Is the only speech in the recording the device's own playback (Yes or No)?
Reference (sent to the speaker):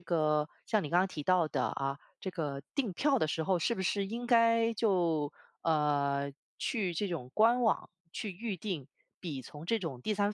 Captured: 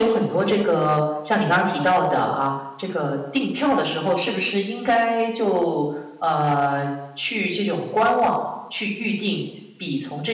Yes